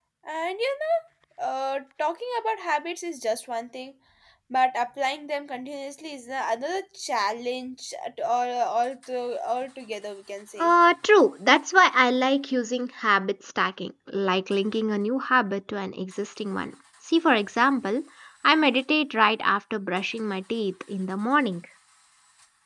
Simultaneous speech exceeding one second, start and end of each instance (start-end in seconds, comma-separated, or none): none